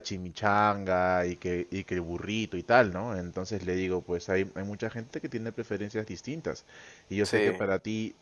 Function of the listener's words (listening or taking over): listening